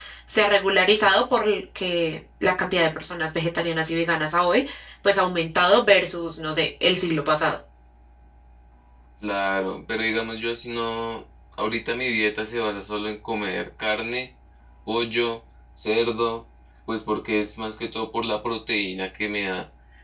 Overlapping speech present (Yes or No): No